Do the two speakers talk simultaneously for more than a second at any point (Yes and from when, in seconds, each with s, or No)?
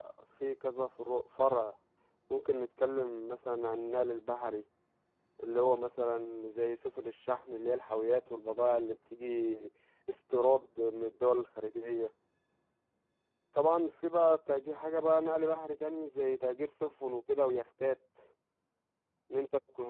No